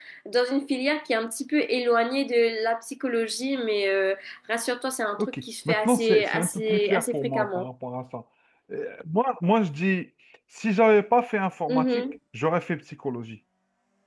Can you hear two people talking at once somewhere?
Yes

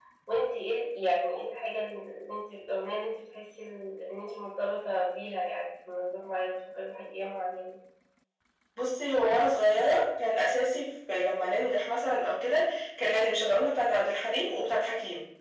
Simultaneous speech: No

